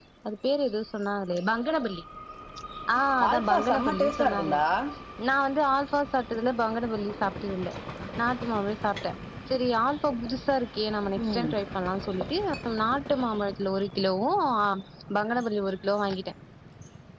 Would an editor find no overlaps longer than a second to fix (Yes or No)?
No